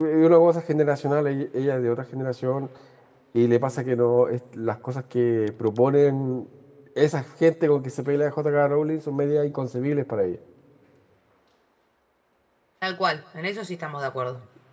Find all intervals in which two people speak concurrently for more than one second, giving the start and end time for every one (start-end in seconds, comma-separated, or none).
none